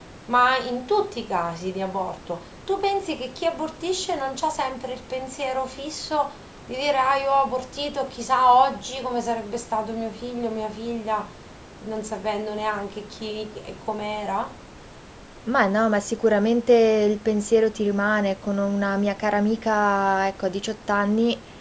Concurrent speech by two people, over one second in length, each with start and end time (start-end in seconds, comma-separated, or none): none